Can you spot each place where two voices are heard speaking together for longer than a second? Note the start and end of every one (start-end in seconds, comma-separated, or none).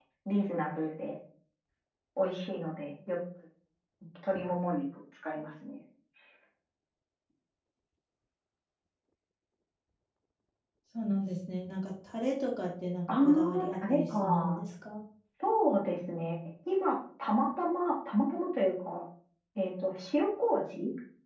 13.1-14.6